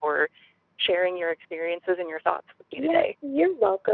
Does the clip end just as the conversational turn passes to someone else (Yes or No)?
Yes